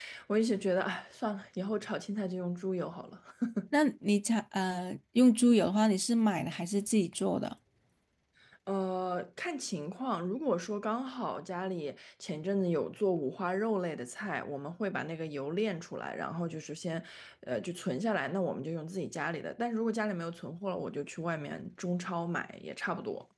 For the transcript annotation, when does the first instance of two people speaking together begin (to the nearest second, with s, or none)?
none